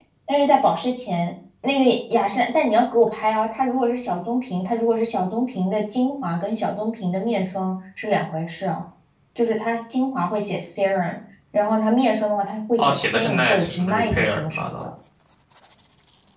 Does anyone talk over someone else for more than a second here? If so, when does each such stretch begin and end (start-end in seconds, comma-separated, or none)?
12.8-14.7